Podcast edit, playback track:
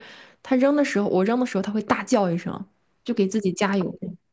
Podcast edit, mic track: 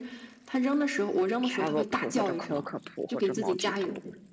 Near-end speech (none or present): present